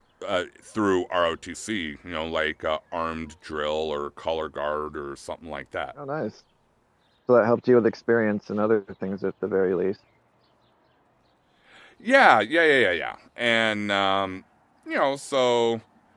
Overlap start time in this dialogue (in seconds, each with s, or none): none